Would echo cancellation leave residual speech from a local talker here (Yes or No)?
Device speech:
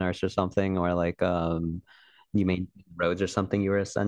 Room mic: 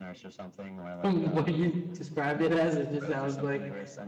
Yes